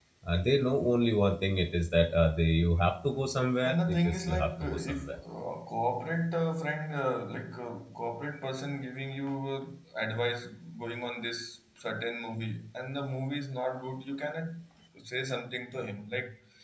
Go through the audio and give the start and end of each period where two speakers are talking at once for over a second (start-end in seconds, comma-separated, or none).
3.6-5.2